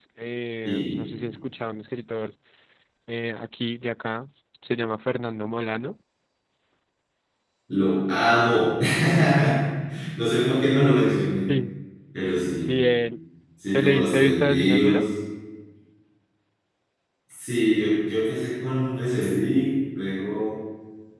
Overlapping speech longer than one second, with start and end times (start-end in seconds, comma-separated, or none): 13.7-15.0